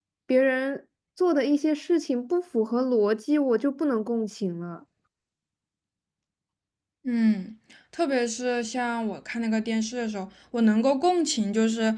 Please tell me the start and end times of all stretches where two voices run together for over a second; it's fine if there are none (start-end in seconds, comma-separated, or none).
none